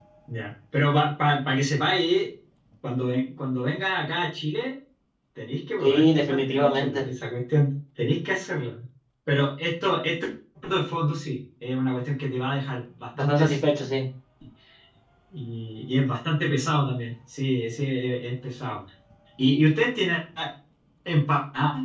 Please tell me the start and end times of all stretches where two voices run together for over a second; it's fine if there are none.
5.8-7.0

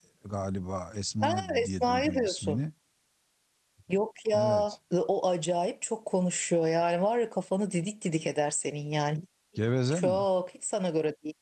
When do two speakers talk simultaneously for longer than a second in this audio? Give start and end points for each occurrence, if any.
1.2-2.6

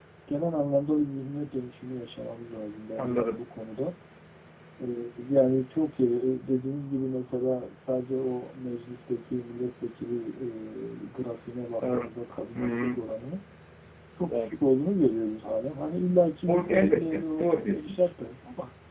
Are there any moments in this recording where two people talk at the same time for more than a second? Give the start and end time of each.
16.5-18.1

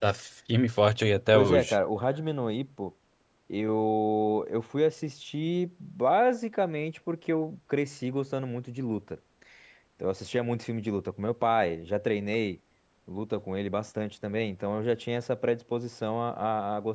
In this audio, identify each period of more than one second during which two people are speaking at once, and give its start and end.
none

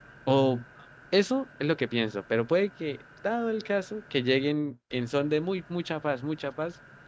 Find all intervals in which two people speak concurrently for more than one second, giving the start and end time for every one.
none

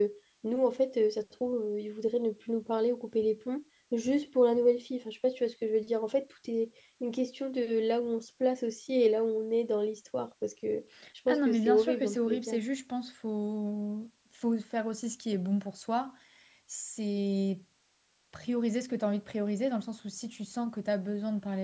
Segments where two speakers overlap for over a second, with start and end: 11.3-12.6

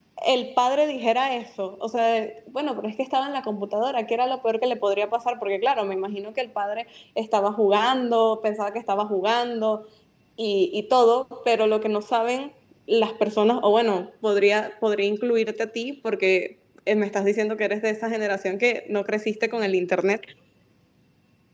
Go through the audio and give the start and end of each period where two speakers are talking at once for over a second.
none

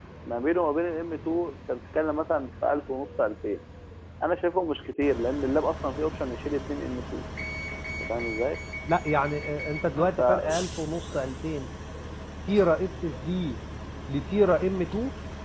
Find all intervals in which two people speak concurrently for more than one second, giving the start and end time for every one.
none

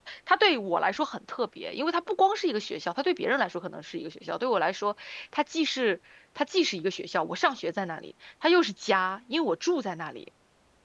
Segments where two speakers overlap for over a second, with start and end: none

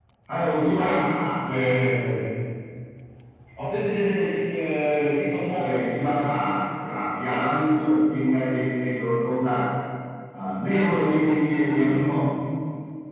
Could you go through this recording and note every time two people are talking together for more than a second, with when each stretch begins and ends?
none

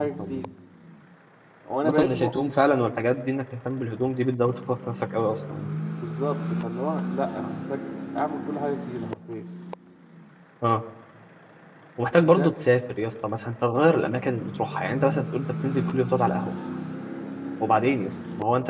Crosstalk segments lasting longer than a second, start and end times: none

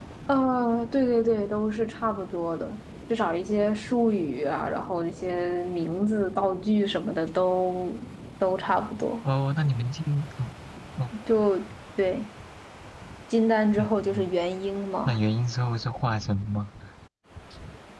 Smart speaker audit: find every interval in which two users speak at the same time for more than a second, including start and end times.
none

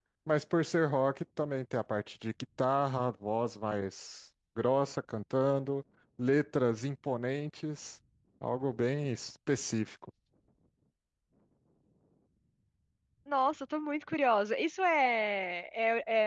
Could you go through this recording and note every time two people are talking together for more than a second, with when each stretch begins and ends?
none

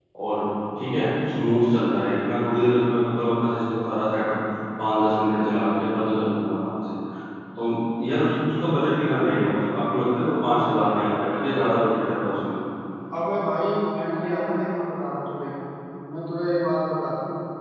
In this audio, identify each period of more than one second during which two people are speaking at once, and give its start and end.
none

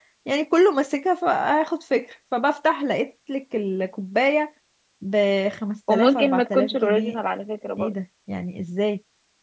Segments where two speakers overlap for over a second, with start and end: 5.9-7.2

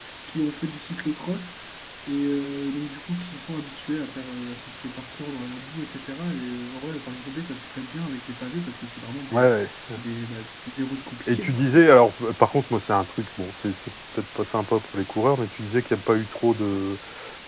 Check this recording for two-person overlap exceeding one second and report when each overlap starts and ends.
none

